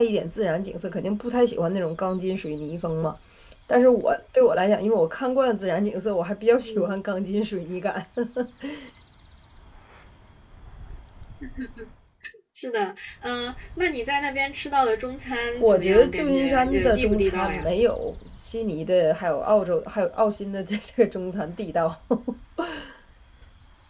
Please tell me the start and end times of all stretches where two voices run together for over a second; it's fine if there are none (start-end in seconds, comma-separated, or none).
15.6-17.7